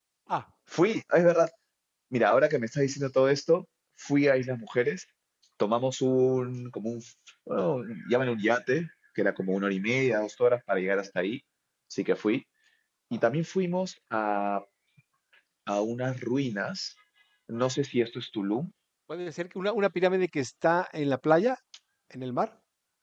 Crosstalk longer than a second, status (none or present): none